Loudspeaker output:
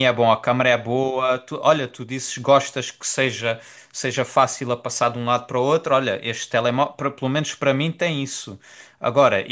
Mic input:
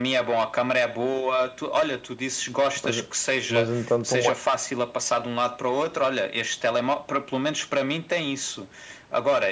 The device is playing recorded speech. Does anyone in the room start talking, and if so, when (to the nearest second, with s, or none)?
3 s